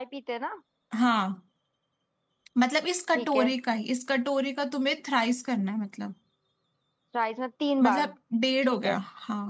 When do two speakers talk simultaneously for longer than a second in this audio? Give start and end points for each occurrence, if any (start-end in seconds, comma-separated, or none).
none